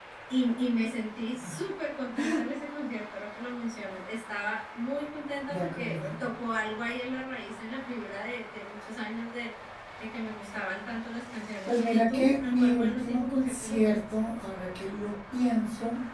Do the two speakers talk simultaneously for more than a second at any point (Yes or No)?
Yes